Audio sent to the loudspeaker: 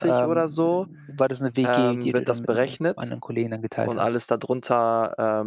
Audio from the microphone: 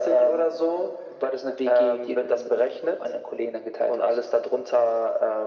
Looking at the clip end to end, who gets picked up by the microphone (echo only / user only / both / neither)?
echo only